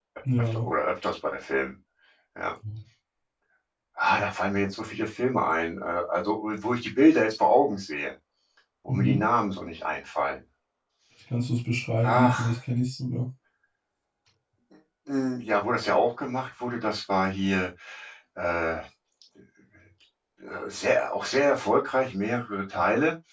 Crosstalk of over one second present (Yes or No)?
No